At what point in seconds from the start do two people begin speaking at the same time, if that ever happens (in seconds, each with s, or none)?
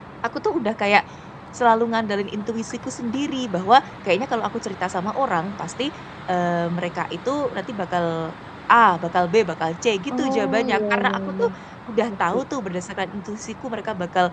10.2 s